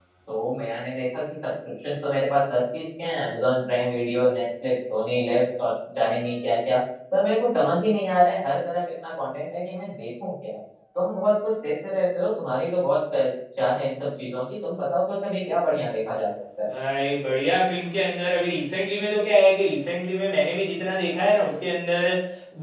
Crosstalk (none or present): none